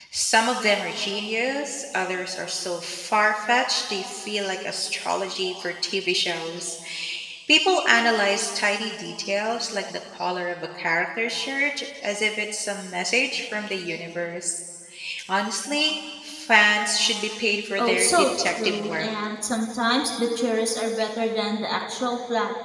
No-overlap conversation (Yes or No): No